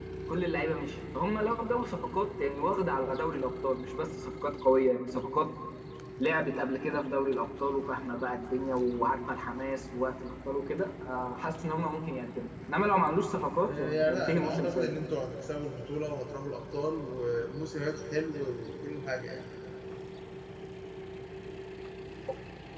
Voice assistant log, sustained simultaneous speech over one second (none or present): present